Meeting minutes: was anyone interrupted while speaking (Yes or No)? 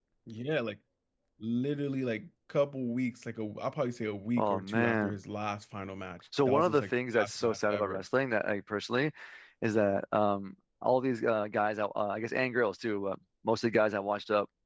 Yes